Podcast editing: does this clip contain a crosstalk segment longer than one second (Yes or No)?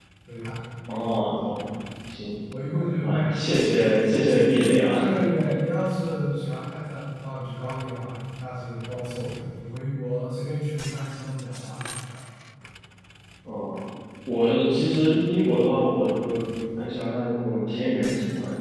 No